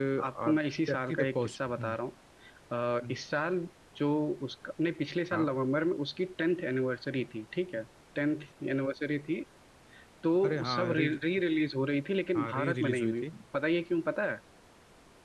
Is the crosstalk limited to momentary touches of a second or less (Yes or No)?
No